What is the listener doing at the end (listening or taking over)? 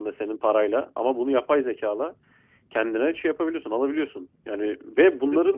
listening